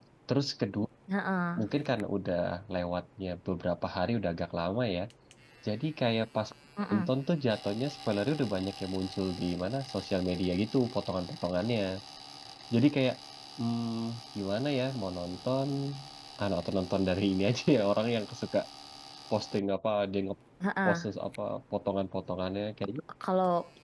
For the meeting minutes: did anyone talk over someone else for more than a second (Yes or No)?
No